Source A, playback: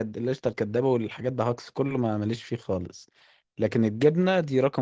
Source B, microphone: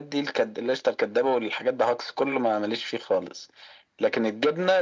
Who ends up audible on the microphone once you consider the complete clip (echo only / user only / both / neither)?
echo only